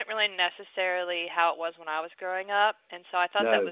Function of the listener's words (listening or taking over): listening